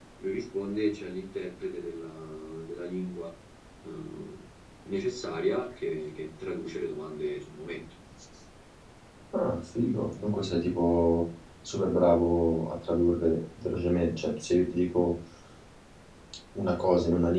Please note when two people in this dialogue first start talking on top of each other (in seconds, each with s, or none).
none